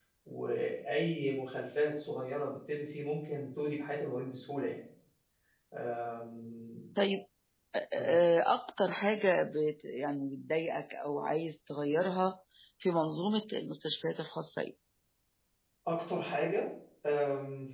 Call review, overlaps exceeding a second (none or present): none